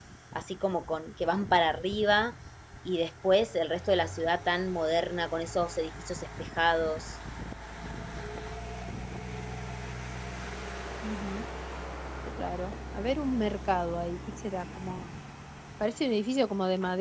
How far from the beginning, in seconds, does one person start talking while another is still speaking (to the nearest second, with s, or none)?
none